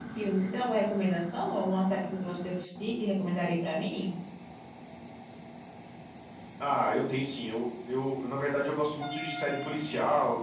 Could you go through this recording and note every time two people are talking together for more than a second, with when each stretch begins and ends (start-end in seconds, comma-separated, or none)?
none